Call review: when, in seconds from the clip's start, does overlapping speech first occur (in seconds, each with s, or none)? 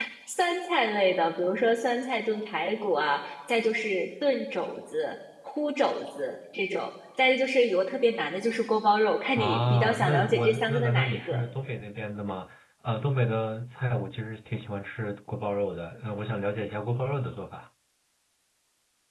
9.4 s